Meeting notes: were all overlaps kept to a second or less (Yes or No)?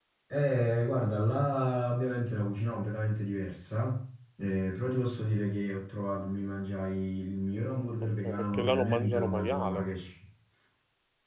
No